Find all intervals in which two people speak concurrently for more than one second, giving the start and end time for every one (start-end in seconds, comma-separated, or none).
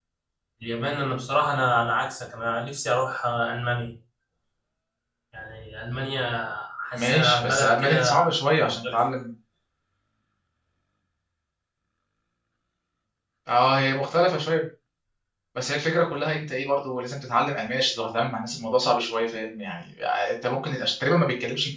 6.9-8.2